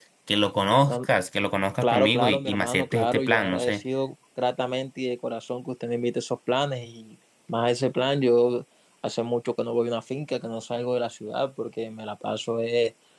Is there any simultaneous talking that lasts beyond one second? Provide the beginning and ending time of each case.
1.8-3.8

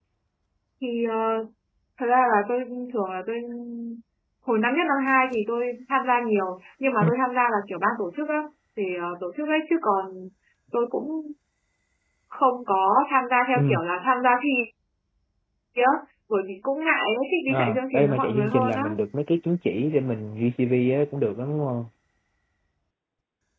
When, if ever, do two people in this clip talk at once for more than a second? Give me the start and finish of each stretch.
17.5-18.9

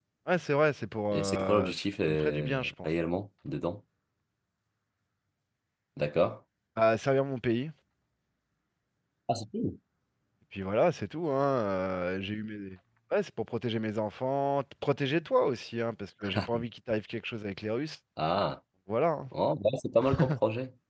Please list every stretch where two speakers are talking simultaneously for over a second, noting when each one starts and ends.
1.1-2.9

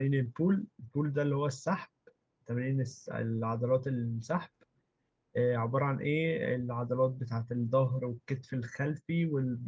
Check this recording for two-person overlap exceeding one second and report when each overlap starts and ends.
none

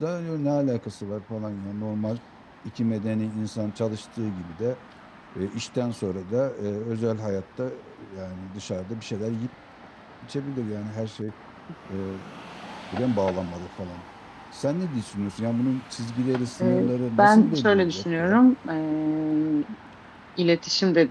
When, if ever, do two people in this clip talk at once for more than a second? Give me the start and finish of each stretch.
17.2-18.4

